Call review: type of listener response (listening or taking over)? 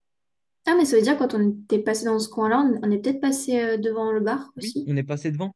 taking over